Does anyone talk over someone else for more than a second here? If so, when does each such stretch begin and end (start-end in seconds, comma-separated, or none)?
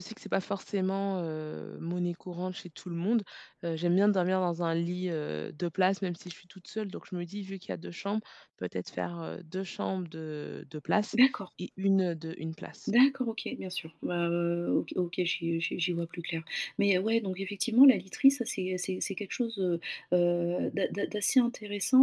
none